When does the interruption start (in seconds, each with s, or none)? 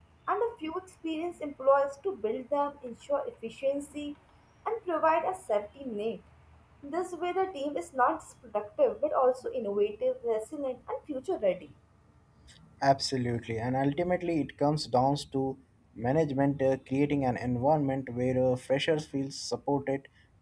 none